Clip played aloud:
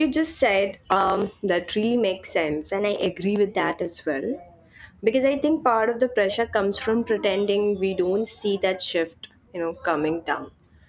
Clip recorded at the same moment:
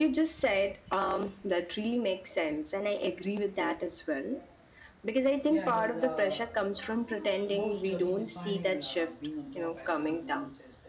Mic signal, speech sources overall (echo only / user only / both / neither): both